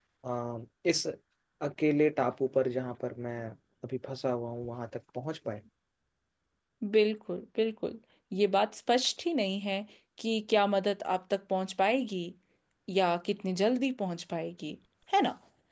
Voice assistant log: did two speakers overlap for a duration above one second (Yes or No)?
No